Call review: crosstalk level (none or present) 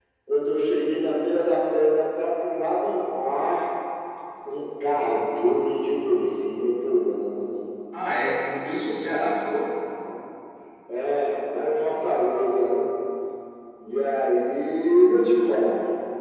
none